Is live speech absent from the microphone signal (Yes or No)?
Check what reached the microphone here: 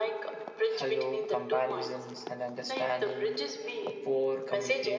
No